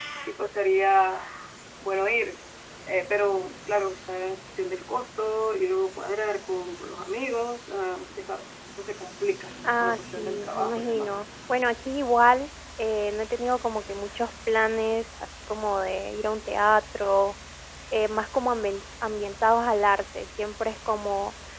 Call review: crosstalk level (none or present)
present